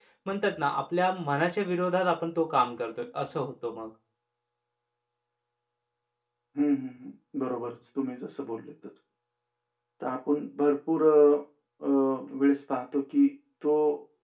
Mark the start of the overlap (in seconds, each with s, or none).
none